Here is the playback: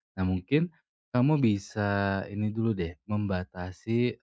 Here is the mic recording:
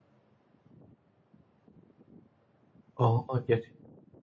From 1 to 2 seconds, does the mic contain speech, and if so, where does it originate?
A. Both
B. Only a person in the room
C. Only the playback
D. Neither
D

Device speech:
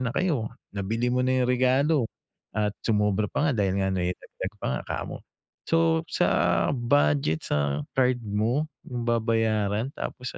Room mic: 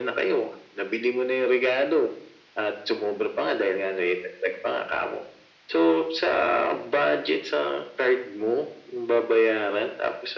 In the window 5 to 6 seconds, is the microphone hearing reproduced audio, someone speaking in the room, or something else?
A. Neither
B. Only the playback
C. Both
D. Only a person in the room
B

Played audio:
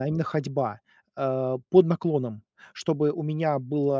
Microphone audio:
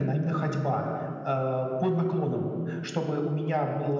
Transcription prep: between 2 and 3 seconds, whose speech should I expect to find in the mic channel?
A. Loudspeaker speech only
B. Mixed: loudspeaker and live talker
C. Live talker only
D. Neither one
A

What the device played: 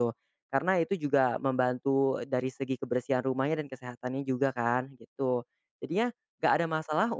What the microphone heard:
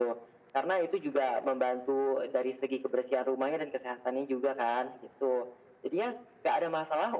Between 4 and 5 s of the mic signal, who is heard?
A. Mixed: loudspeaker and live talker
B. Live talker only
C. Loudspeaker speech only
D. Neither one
C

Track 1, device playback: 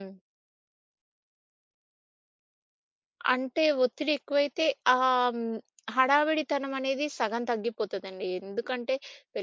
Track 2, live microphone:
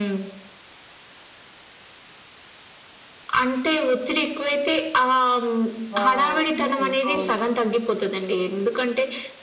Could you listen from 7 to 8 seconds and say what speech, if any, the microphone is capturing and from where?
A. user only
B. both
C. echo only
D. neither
B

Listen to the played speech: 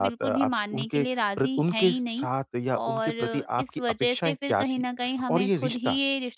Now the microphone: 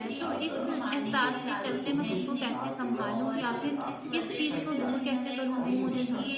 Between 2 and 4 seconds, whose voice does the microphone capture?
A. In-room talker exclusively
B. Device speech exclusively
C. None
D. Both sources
D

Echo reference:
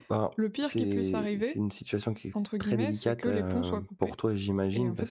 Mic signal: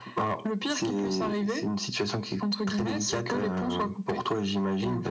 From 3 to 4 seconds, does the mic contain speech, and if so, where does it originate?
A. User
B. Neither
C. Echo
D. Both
C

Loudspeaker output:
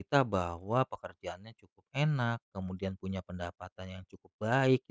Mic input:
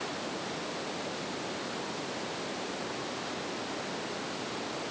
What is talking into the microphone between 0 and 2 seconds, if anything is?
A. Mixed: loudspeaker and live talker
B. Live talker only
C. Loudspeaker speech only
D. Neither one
D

